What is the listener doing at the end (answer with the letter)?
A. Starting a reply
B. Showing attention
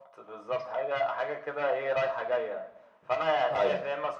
B